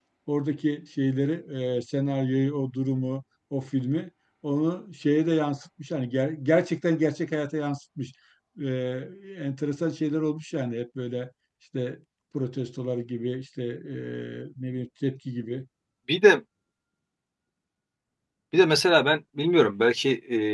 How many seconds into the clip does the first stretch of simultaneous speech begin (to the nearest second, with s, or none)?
none